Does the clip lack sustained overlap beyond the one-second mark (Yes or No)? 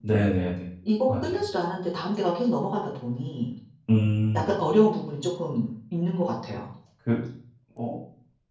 Yes